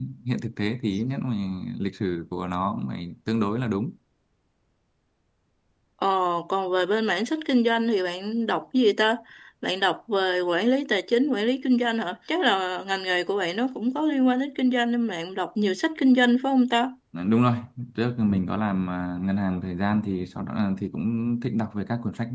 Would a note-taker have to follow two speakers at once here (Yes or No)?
No